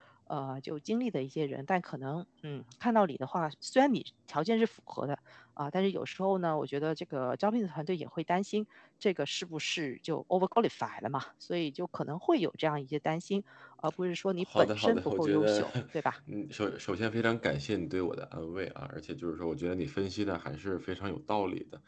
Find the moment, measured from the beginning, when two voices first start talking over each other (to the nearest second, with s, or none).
14 s